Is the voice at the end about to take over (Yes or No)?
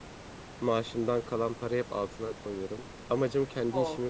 No